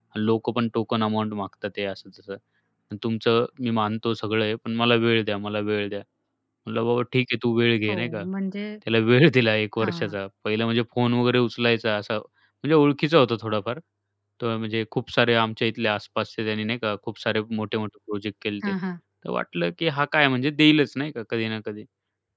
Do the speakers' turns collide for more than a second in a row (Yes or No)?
No